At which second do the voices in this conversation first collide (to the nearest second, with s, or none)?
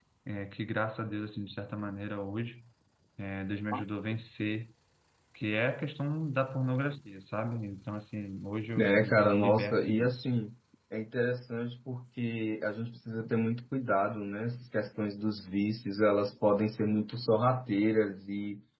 9 s